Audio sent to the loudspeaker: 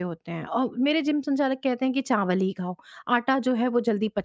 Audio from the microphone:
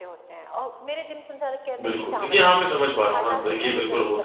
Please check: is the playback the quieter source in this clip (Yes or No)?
Yes